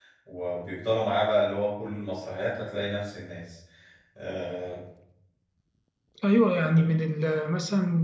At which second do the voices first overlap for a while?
none

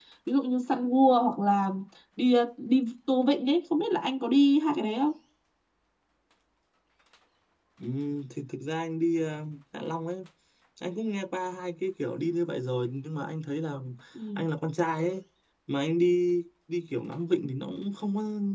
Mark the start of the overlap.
none

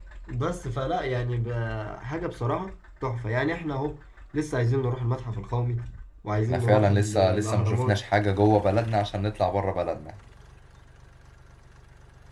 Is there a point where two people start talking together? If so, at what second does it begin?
6.5 s

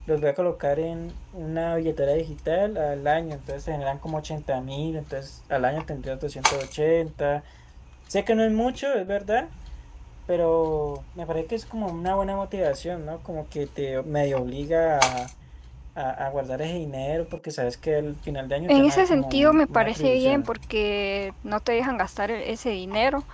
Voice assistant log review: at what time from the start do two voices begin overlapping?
18.7 s

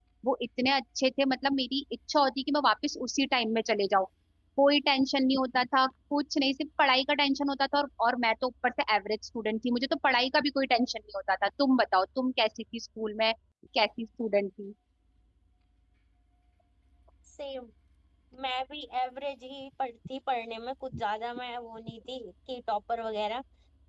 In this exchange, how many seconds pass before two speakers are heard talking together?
none

